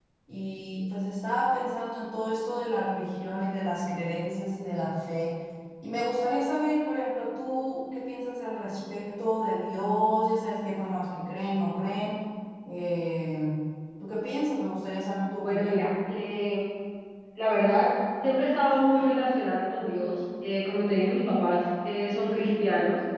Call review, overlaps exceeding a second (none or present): none